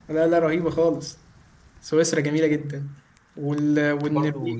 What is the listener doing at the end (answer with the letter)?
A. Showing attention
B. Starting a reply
B